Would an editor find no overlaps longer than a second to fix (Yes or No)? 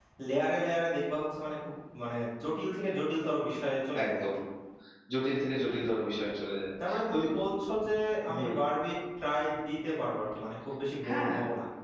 Yes